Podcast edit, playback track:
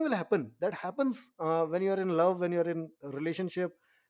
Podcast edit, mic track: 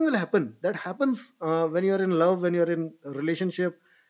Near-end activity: none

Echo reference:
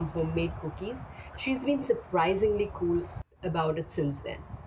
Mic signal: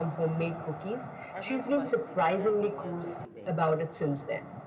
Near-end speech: present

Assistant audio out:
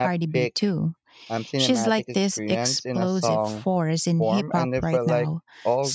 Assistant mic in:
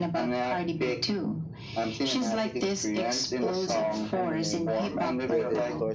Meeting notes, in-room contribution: present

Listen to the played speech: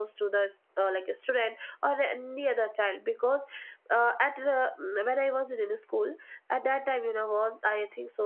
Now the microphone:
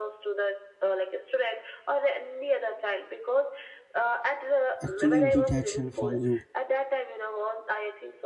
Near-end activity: present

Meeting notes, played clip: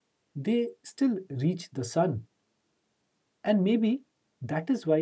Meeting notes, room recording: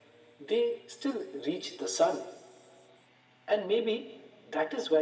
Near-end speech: none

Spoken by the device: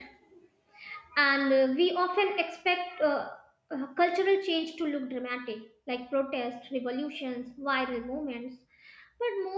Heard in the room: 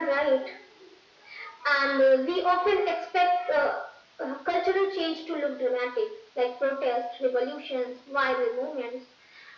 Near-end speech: none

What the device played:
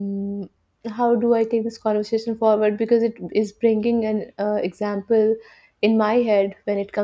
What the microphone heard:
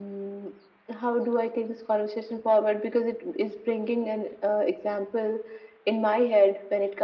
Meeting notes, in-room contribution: none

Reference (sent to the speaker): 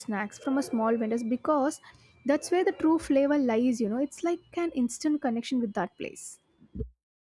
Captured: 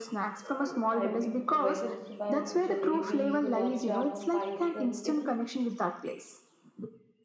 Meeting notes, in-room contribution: present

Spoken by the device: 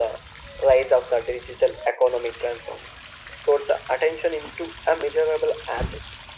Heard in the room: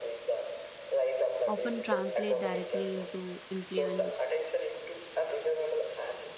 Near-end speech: present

